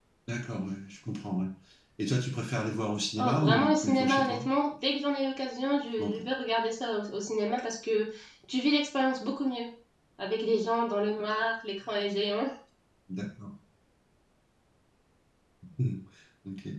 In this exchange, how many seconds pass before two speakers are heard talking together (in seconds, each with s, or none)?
3.2 s